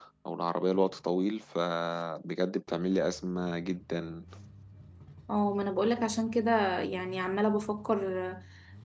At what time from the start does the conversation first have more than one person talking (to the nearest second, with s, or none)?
none